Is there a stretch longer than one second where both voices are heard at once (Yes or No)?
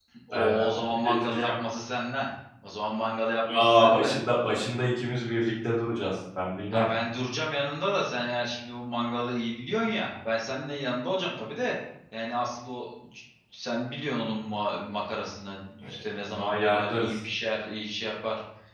Yes